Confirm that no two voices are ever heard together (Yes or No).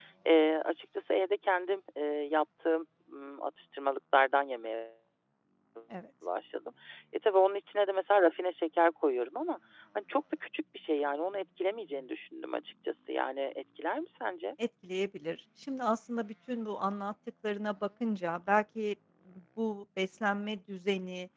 Yes